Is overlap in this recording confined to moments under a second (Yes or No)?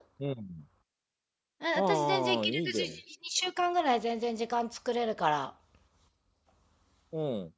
No